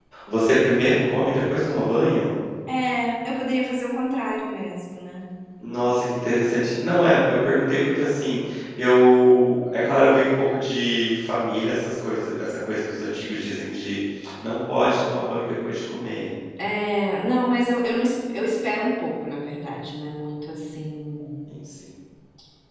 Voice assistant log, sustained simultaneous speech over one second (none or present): none